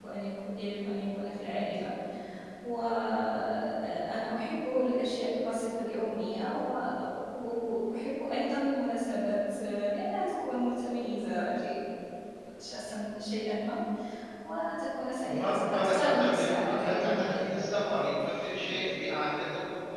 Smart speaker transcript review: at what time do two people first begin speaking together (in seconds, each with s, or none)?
15.2 s